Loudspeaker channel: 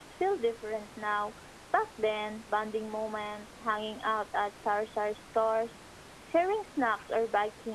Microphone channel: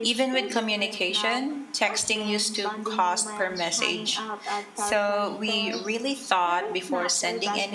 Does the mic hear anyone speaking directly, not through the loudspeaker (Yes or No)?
Yes